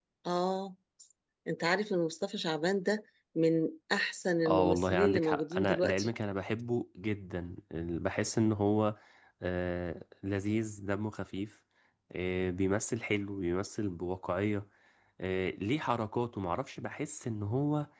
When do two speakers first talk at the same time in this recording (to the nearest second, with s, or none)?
4 s